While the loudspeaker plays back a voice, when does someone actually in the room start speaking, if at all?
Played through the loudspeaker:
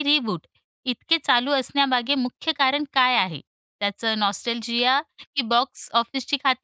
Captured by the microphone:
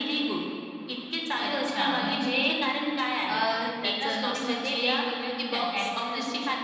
1.4 s

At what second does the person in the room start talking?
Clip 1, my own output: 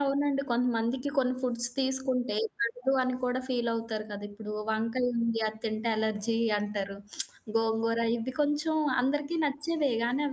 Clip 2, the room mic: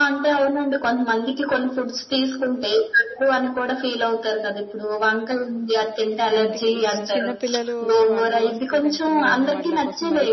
6.3 s

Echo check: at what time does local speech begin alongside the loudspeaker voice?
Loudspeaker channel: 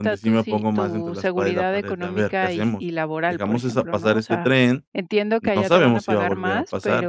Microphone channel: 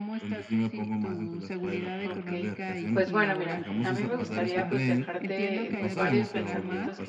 2.0 s

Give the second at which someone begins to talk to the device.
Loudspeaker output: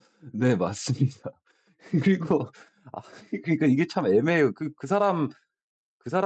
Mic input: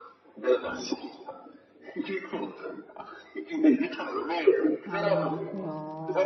4.8 s

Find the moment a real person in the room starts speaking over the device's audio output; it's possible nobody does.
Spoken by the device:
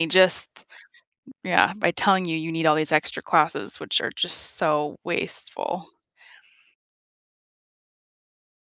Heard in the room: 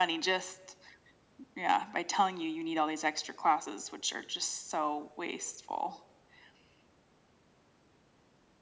none

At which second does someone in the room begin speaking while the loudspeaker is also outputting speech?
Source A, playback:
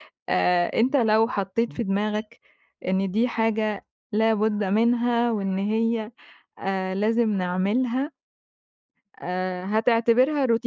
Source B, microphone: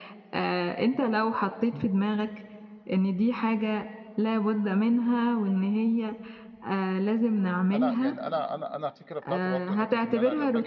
7.7 s

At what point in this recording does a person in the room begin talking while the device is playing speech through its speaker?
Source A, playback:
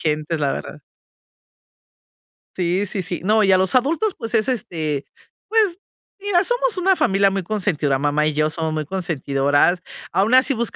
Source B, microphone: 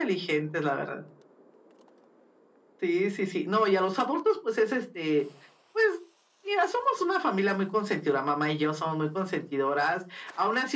none

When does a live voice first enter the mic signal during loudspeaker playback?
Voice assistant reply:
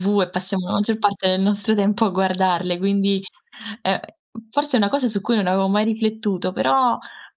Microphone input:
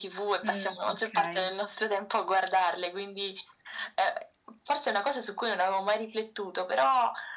0.4 s

